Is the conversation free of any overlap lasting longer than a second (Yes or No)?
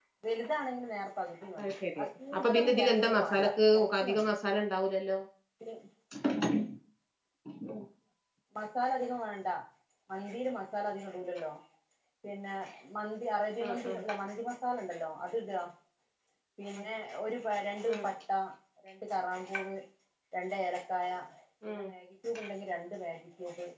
No